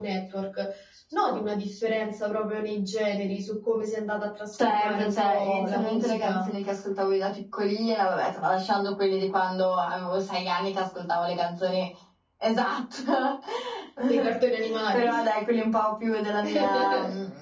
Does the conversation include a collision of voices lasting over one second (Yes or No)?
Yes